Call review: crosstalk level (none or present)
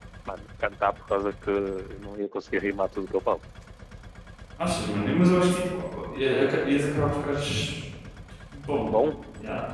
none